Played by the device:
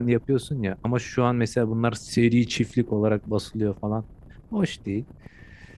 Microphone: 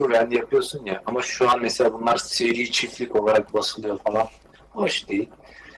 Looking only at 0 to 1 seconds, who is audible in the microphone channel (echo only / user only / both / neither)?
echo only